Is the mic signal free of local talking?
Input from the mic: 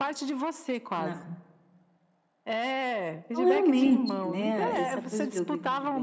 No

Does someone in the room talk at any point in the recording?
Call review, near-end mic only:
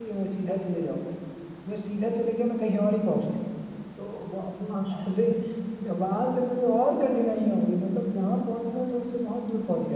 Yes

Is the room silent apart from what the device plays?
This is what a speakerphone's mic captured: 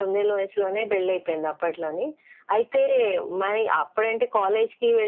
Yes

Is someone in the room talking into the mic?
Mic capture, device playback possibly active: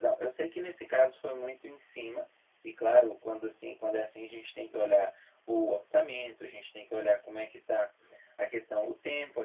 No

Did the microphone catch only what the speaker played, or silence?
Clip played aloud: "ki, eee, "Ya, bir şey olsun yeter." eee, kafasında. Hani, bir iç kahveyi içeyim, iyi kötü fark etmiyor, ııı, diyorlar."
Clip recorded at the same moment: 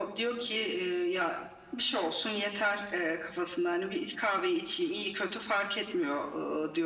Yes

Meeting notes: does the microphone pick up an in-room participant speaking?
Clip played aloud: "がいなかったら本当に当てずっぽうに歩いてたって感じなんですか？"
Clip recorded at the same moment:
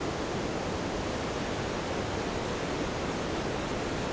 No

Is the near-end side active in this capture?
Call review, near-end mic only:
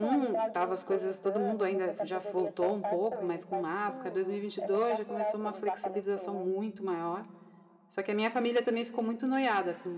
Yes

